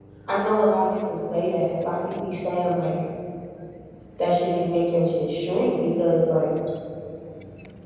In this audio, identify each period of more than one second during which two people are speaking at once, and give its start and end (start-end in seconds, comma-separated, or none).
none